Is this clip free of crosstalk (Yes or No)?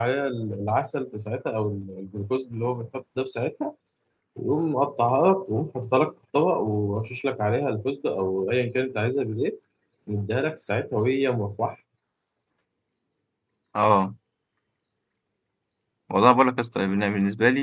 Yes